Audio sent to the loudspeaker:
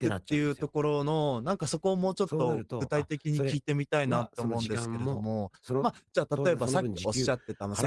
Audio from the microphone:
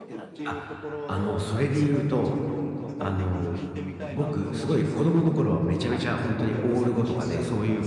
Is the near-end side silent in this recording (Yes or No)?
No